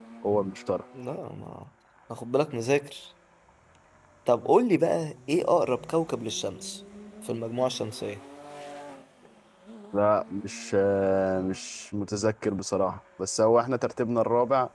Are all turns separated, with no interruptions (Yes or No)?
Yes